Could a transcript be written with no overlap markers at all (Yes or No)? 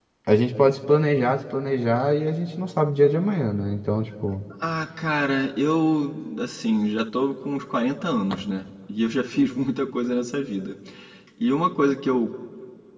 Yes